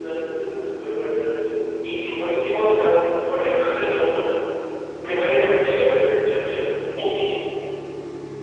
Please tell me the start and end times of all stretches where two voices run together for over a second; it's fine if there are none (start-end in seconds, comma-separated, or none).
none